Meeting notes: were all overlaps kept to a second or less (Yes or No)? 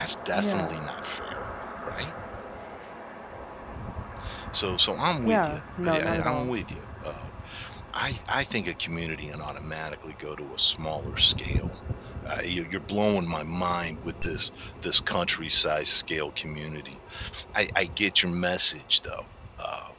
No